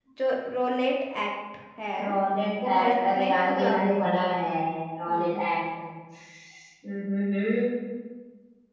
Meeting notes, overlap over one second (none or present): present